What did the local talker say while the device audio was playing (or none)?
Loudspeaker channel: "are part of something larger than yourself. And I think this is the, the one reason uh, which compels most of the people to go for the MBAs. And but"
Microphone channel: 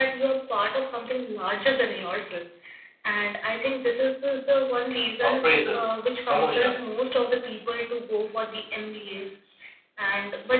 appraisals promotions